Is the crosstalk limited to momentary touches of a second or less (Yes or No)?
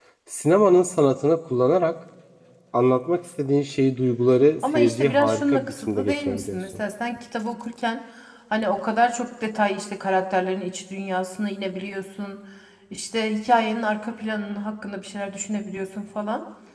No